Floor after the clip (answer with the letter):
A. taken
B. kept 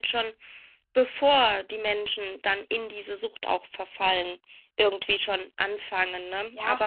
A